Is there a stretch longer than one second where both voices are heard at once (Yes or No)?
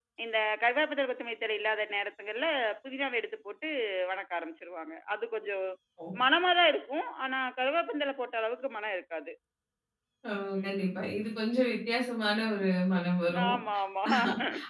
No